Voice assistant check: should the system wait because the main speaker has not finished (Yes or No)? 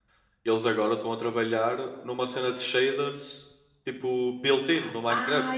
No